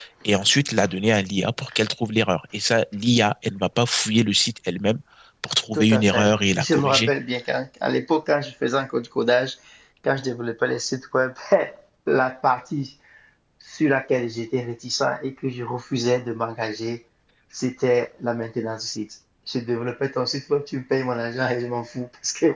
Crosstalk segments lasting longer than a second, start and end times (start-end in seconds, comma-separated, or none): 5.7-7.1